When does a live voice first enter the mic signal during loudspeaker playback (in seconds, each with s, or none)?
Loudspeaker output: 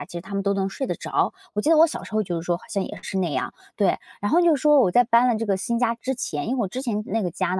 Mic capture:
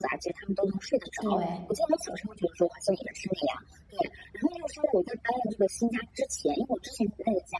1.2 s